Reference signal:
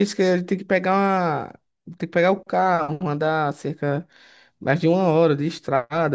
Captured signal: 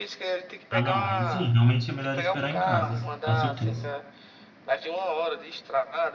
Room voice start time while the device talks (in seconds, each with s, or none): 0.7 s